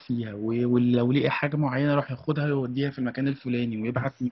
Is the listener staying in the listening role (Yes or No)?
Yes